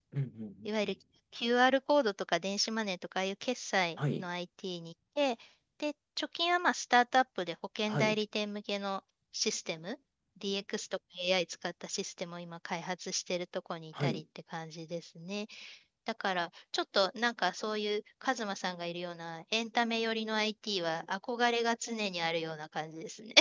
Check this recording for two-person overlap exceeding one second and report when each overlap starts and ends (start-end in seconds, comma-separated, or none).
none